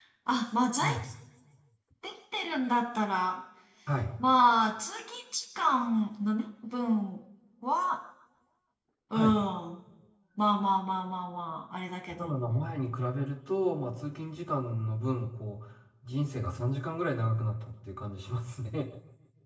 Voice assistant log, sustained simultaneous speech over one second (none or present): none